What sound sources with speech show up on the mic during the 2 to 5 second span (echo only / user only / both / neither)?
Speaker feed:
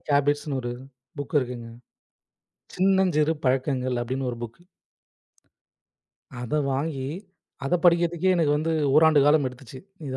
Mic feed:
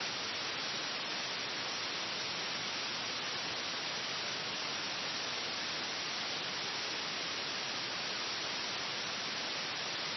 neither